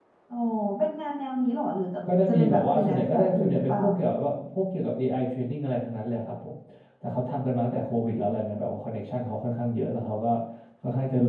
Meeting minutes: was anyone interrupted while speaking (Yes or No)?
Yes